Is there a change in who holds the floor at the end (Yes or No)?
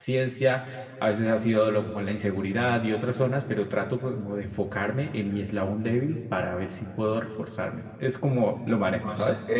Yes